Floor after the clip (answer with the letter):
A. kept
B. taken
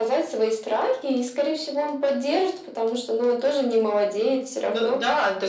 B